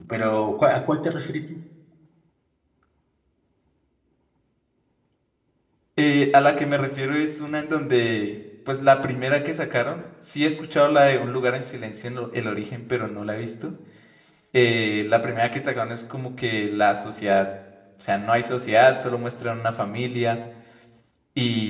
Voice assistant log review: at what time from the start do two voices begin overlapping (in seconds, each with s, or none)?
none